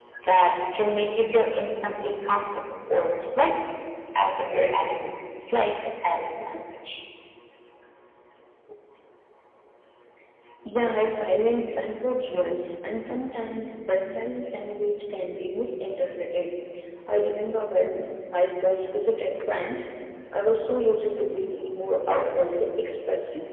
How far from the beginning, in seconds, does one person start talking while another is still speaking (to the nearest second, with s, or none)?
none